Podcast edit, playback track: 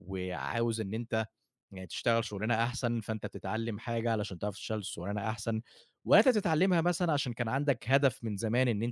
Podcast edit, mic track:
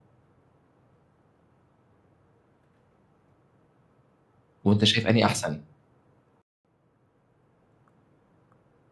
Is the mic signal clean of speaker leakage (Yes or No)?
Yes